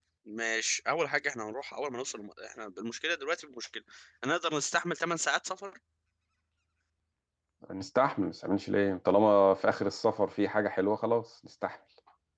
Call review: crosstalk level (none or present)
none